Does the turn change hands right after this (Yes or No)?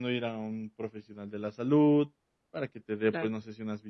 No